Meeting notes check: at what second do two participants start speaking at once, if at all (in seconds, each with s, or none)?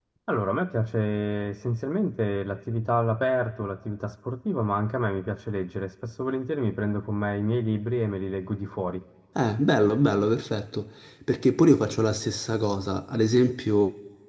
none